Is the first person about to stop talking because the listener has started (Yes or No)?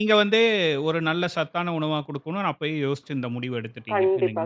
Yes